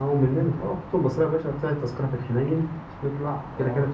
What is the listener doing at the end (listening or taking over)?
listening